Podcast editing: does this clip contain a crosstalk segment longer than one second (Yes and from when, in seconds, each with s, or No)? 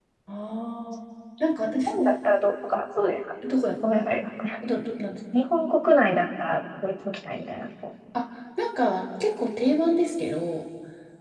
No